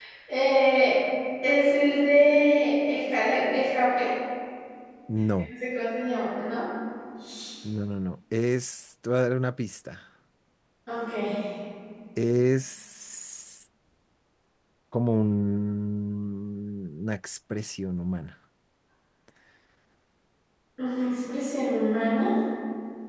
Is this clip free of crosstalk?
Yes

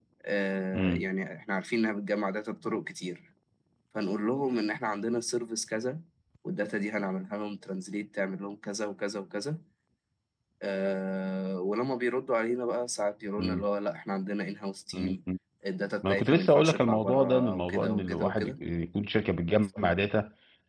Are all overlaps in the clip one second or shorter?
No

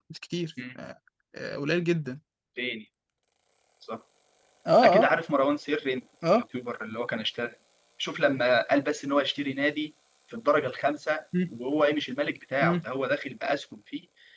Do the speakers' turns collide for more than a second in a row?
No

